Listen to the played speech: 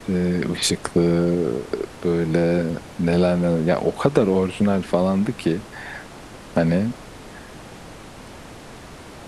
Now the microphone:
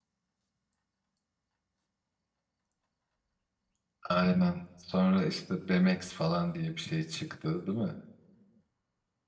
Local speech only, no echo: Aynen. Sonra işte BMX falan diye bir şey çıktı değil mi?

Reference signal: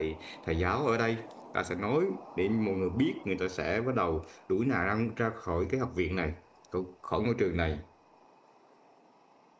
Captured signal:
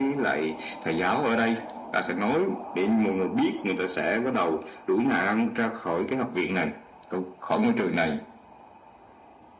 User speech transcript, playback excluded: none

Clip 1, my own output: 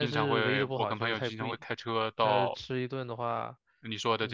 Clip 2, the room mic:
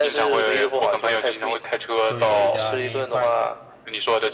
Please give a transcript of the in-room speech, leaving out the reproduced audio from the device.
就有一家拈一筷子，

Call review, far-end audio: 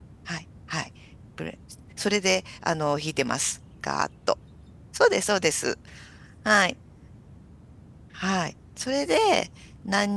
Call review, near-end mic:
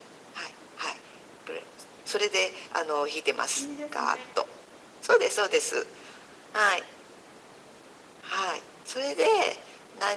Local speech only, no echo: いいですね。

